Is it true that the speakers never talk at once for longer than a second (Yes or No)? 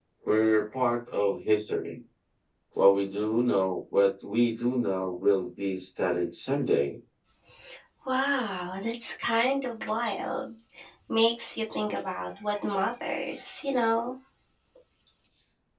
Yes